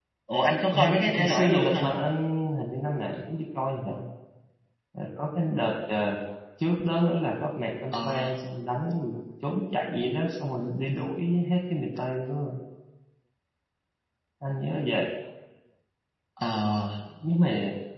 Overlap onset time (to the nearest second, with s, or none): 1 s